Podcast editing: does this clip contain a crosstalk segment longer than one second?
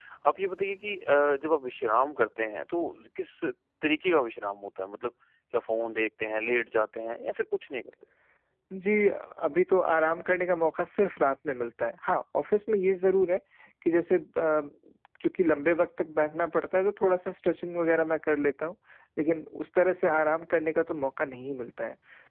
No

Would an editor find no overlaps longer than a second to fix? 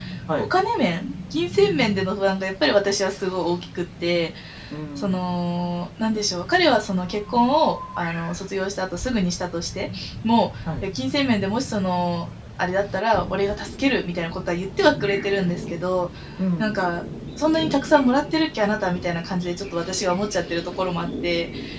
Yes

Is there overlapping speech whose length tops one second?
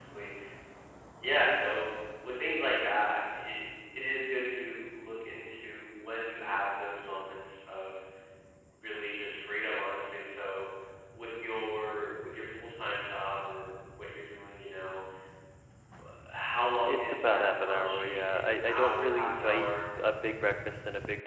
Yes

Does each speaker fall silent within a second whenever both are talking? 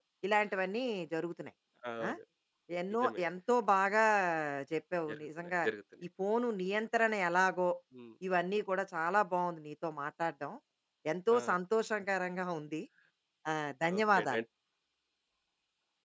Yes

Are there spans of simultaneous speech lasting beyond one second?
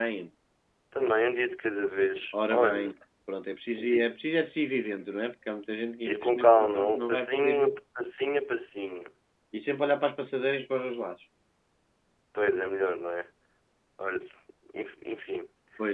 Yes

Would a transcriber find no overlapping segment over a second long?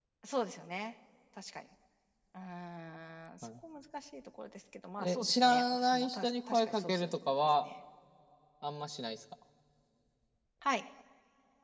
No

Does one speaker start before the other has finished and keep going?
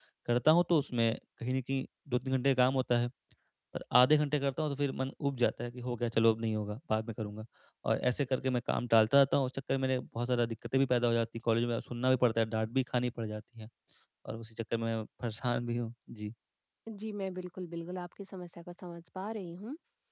No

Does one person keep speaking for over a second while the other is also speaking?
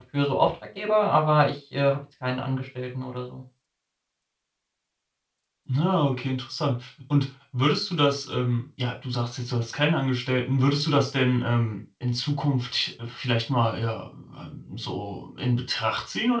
No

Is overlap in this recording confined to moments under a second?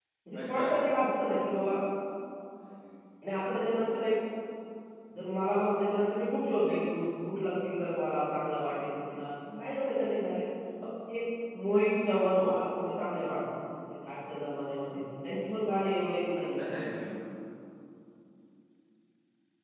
Yes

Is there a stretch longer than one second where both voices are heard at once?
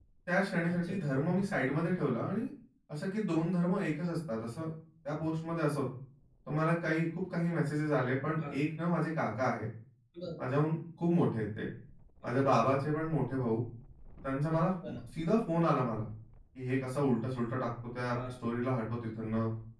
No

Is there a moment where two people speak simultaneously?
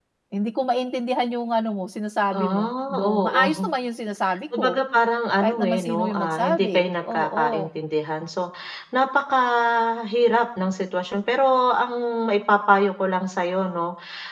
Yes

